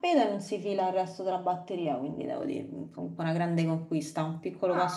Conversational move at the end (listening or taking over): taking over